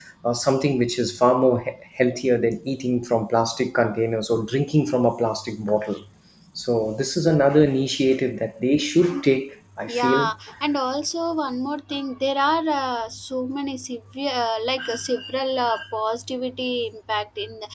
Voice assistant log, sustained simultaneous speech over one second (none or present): none